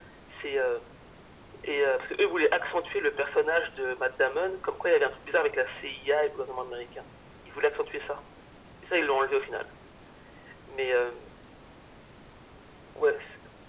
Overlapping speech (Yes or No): No